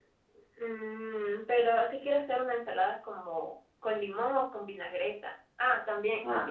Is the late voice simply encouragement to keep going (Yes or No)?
Yes